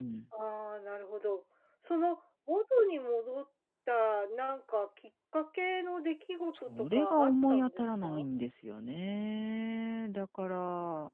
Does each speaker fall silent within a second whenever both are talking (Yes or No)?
No